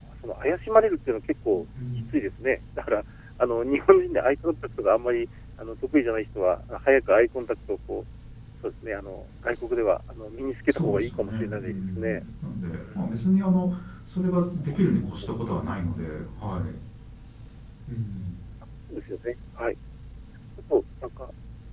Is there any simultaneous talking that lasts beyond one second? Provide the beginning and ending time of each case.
10.7-12.2

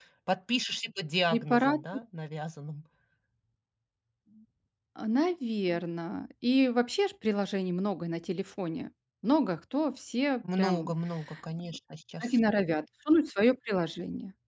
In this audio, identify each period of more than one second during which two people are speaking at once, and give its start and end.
none

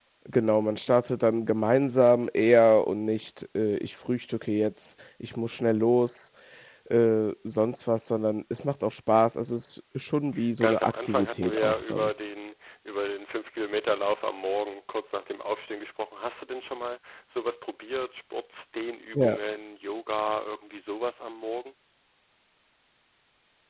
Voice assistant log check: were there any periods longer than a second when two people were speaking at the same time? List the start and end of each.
10.6-12.1

